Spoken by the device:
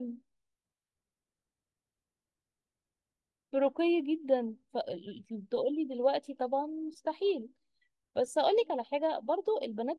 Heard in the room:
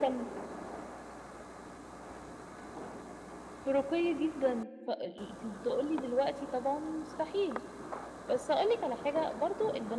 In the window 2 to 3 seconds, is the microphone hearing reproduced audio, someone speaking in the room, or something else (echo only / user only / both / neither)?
neither